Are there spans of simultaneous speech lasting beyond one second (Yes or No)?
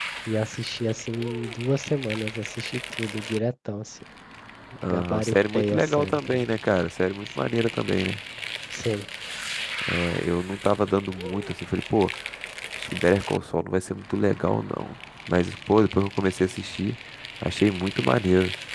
Yes